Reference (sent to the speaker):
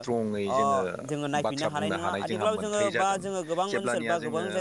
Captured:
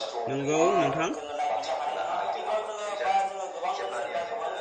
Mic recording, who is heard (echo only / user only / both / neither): both